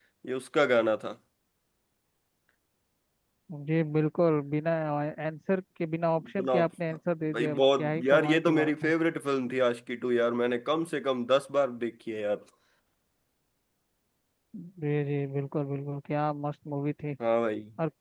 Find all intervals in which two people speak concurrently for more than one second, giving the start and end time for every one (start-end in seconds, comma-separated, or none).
7.3-8.9